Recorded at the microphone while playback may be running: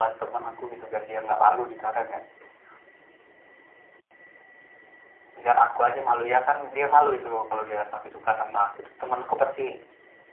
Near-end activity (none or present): none